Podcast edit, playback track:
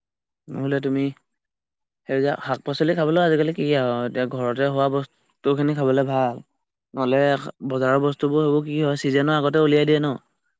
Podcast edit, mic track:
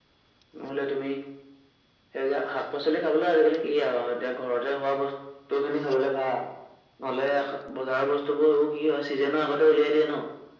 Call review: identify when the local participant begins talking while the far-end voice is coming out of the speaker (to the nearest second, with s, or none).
none